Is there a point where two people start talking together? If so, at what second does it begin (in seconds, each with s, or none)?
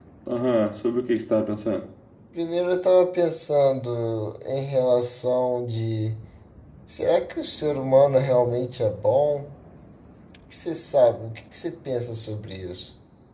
none